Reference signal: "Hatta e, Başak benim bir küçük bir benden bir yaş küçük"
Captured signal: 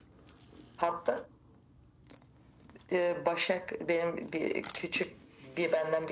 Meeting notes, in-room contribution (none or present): none